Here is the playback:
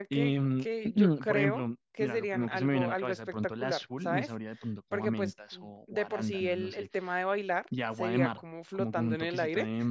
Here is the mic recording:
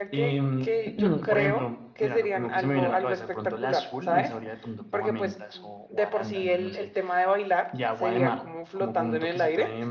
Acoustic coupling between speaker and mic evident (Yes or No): Yes